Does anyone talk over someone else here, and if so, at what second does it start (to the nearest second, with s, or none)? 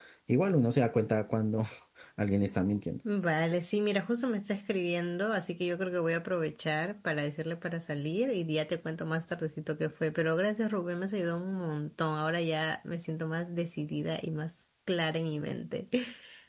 none